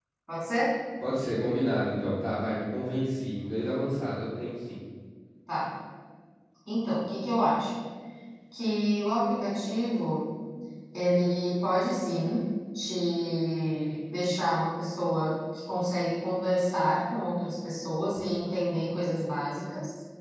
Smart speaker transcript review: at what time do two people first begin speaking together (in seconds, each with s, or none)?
none